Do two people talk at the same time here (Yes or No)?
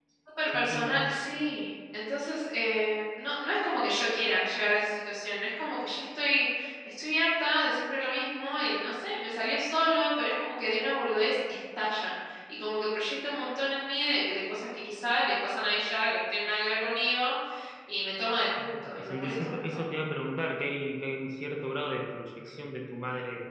Yes